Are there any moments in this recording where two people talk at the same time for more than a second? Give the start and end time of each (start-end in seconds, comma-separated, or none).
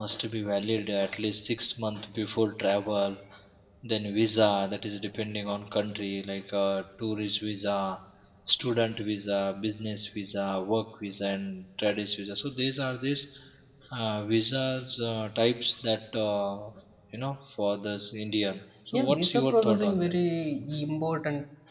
18.9-20.1